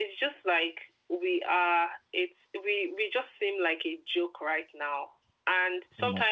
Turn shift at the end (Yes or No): No